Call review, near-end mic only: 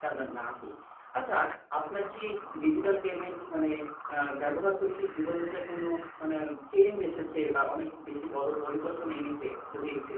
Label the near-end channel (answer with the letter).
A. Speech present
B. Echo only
A